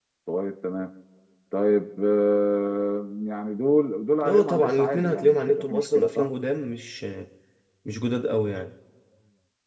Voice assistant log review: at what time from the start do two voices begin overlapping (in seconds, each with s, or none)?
4.2 s